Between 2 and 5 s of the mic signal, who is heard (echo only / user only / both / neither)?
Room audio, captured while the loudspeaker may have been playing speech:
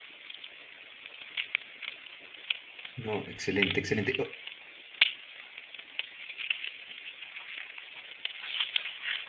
user only